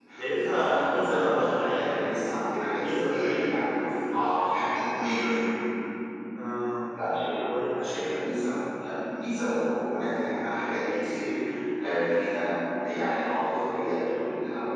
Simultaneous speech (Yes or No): Yes